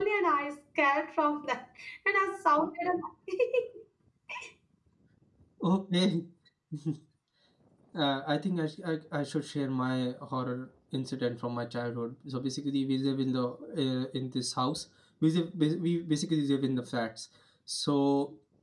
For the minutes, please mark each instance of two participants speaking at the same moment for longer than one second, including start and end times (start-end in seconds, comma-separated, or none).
none